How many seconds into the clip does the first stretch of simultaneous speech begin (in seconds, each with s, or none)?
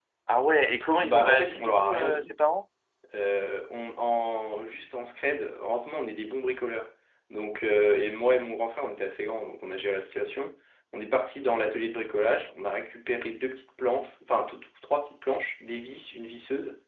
1.0 s